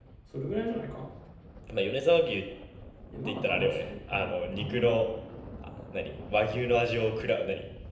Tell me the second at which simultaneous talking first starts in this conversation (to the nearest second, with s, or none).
3 s